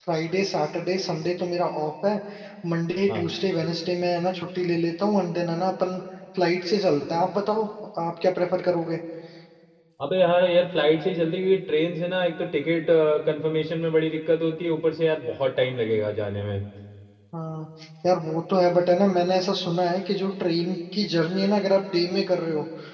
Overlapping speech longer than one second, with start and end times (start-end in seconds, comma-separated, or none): none